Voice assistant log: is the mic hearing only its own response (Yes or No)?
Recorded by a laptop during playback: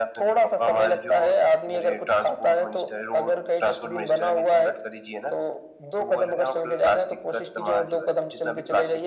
Yes